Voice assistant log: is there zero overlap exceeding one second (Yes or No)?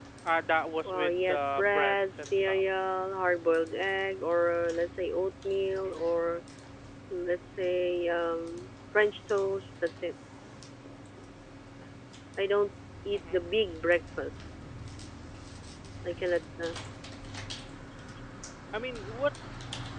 No